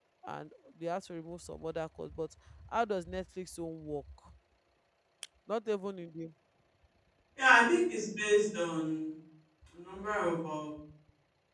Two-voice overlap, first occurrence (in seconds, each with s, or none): none